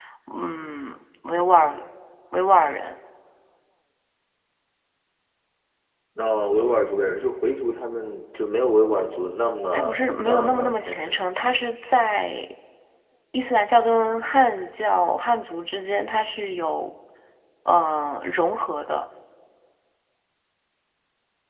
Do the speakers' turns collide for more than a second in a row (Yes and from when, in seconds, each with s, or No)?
Yes, from 9.7 s